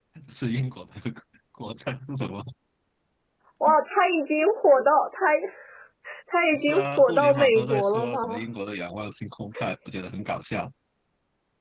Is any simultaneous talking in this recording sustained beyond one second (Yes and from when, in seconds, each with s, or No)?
Yes, from 6.5 s